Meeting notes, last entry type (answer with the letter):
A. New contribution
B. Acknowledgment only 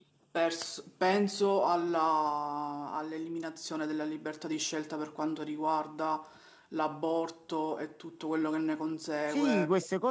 A